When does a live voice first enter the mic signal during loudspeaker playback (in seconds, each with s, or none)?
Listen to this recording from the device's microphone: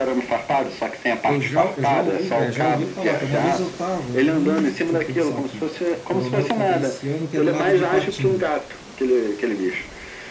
1.2 s